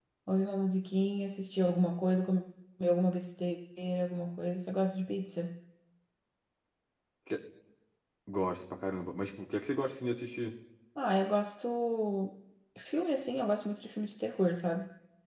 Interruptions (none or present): none